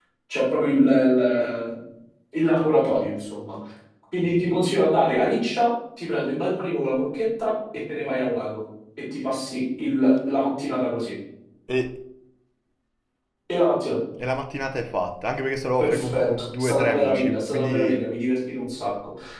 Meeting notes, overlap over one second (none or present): present